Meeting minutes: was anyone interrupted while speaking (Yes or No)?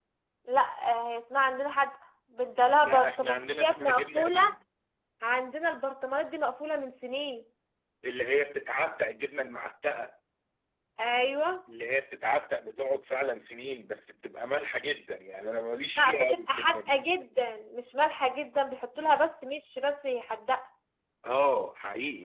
Yes